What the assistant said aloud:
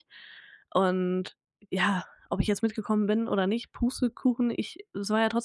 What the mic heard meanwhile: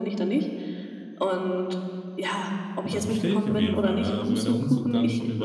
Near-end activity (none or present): present